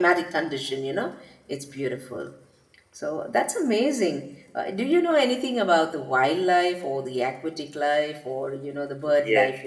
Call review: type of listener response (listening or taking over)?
taking over